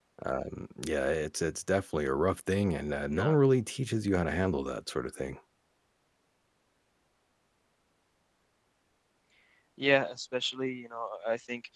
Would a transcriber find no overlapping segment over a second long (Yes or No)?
Yes